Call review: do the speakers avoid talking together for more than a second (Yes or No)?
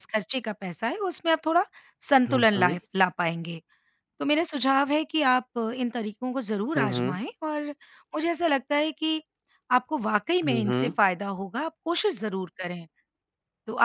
Yes